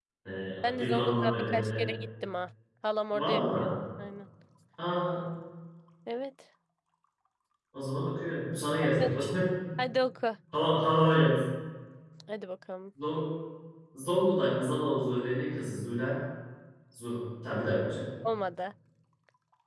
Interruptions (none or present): present